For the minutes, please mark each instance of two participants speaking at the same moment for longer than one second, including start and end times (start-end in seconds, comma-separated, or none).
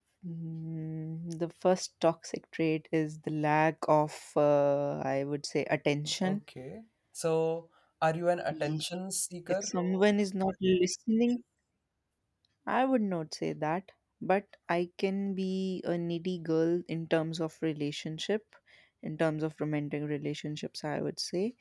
none